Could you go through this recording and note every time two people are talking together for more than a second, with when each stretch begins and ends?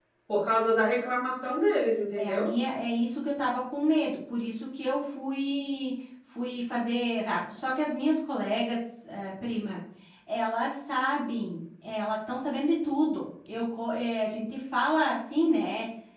none

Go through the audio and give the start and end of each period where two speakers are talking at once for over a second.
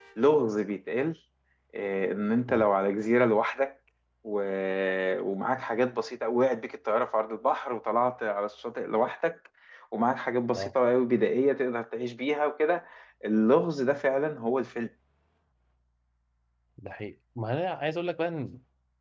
none

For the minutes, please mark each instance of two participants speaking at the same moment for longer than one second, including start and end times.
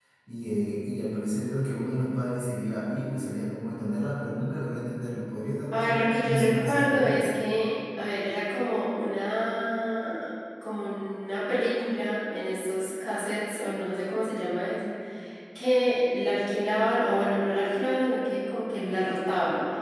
5.7-7.2

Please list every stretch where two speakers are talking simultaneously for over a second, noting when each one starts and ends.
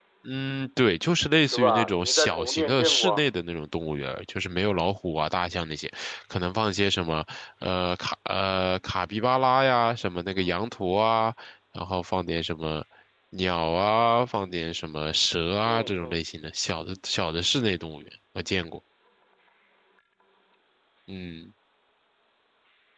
1.5-3.3

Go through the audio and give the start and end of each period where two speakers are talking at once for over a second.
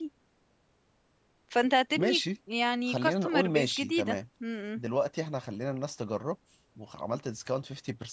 2.9-4.2

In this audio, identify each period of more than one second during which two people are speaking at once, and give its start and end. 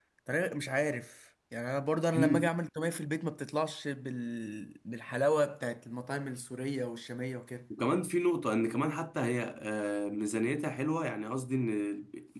none

